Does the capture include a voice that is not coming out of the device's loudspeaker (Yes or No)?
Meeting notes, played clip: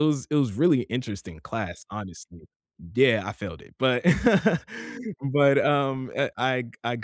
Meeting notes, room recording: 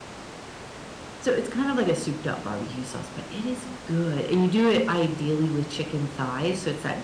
Yes